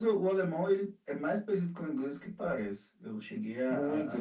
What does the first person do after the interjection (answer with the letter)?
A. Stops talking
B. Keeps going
A